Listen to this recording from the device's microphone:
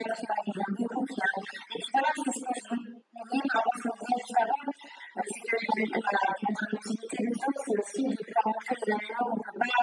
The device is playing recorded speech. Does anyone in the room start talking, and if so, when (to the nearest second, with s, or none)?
none